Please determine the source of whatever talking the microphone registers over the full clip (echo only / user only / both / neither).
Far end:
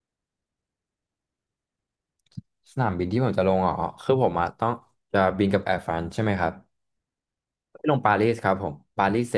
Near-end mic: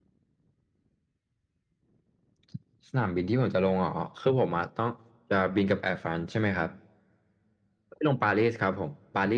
echo only